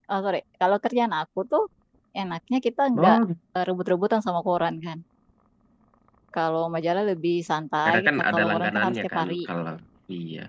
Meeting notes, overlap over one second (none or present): present